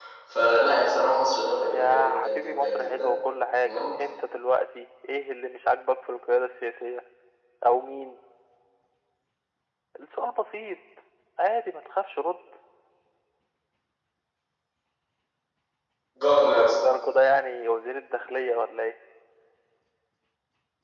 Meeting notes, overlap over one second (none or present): present